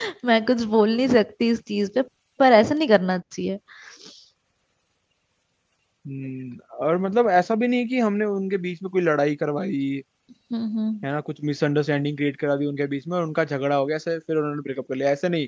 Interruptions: none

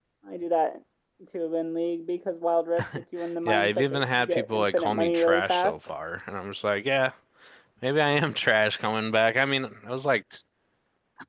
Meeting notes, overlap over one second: present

